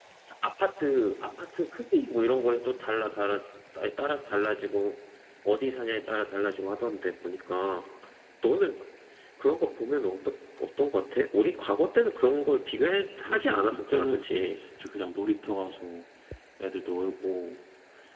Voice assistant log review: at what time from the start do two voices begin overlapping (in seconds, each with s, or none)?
13.2 s